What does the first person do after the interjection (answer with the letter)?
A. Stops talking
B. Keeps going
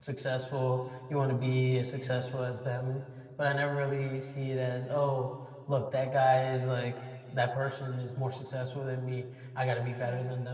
B